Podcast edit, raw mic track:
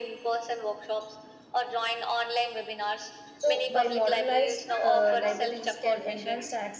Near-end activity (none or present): present